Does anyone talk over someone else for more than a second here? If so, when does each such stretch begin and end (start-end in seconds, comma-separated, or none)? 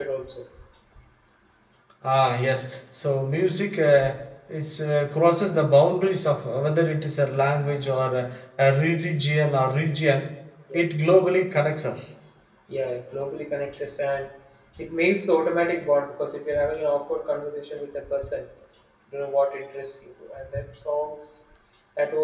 none